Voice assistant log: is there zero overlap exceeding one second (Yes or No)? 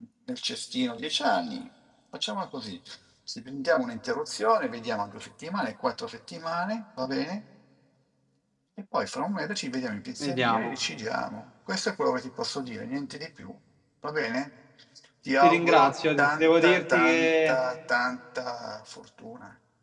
No